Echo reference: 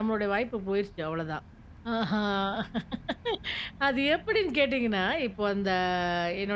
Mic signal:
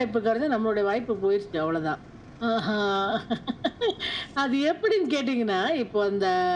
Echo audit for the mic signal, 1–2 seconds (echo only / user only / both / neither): echo only